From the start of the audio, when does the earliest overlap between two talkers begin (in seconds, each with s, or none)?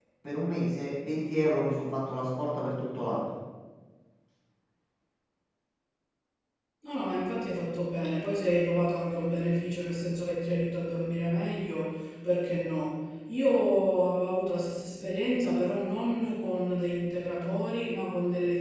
none